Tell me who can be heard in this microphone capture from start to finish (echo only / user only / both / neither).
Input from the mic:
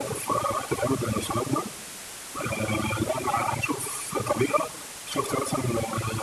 echo only